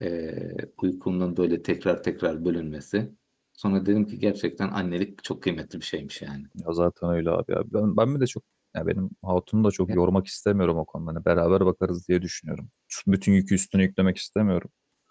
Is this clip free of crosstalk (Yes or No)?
Yes